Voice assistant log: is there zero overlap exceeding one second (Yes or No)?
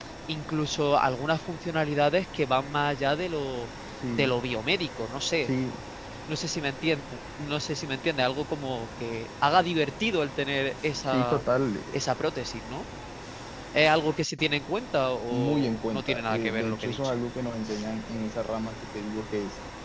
No